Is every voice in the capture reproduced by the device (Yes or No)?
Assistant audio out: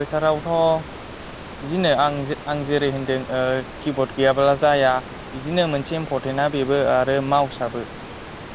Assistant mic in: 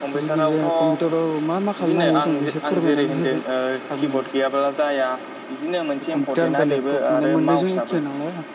No